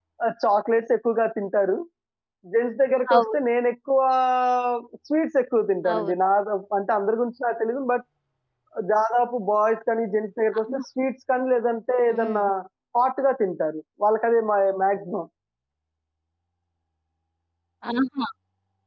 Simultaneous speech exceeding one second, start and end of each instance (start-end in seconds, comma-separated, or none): none